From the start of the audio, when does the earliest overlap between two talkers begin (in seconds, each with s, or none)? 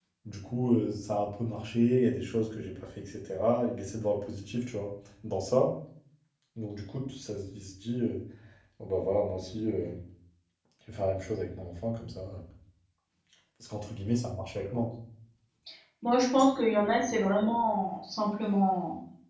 none